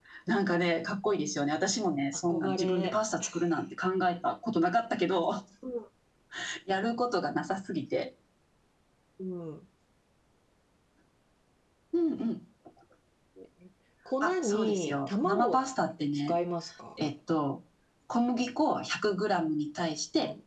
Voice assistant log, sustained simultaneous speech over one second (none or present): present